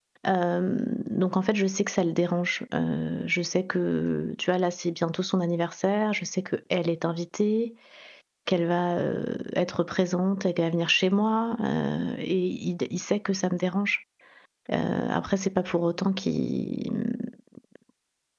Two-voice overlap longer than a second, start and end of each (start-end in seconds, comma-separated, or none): none